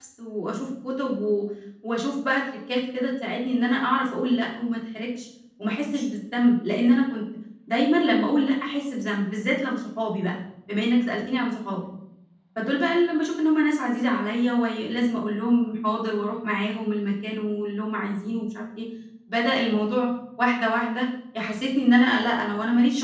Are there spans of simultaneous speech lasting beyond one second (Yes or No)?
No